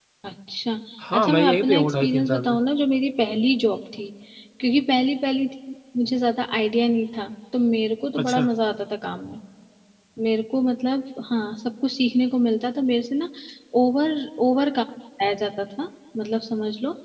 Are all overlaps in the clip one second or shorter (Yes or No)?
No